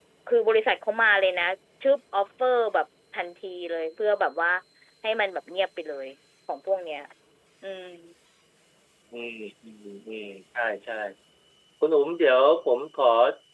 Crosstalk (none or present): none